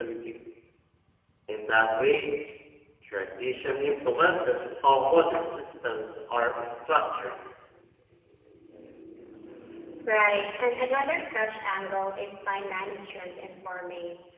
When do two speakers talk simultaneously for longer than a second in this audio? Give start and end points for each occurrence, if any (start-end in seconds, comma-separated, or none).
none